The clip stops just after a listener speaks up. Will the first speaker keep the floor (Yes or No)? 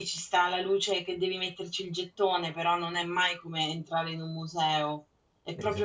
Yes